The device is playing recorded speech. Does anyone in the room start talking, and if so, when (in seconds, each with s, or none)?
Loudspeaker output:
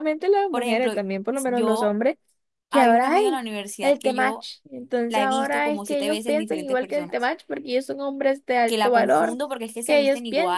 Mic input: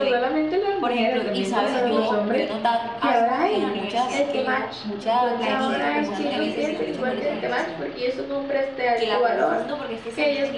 1.3 s